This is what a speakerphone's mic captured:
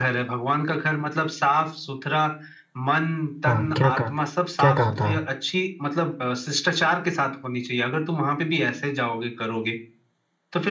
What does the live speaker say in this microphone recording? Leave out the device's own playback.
हाँ क्या कहा था क्या कहा था

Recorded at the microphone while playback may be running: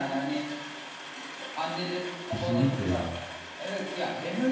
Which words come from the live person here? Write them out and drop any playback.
Kesinlikle ya.

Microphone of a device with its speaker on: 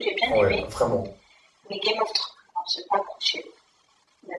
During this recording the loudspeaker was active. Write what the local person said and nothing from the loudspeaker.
Ouais, vraiment.

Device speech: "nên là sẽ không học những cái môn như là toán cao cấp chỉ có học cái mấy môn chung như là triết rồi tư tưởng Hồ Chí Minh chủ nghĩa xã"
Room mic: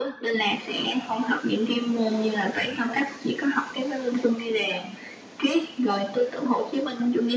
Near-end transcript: none

